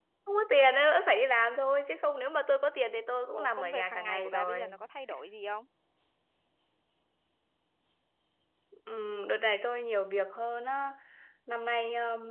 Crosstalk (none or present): present